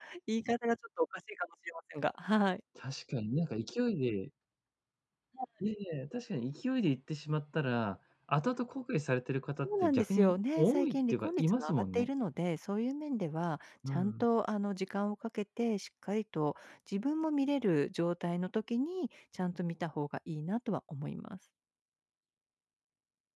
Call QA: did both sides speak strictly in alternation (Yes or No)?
No